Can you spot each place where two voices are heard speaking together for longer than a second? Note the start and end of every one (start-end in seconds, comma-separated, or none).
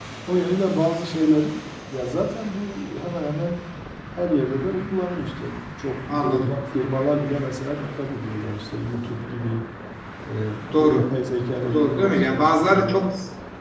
11.7-13.1